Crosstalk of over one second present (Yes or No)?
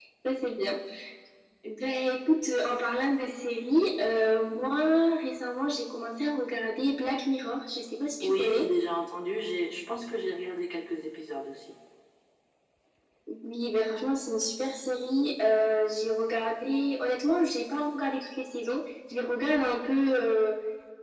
No